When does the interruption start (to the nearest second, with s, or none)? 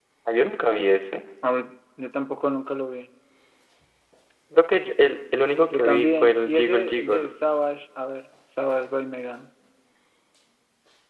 6 s